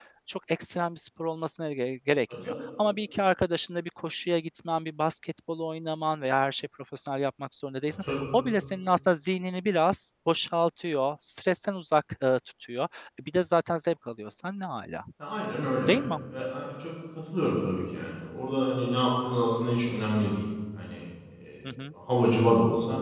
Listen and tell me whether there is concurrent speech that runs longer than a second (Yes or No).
No